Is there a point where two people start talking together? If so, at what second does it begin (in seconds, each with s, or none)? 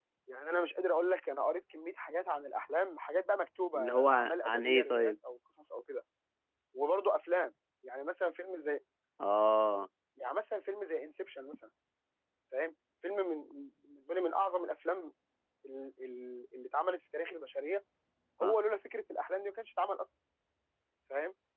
3.7 s